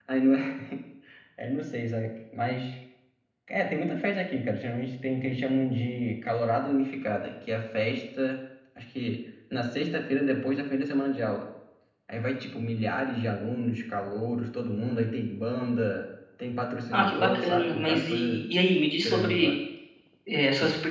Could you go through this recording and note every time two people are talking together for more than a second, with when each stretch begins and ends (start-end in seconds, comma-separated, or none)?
16.9-18.4